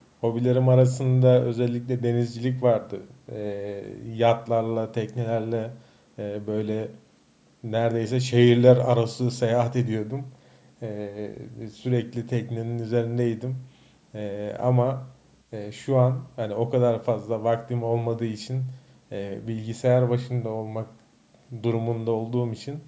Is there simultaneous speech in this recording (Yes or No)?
No